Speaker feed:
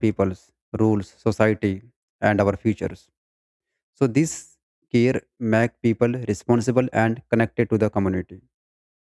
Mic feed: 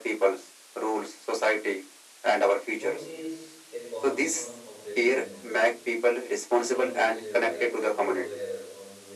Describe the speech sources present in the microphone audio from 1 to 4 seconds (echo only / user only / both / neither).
both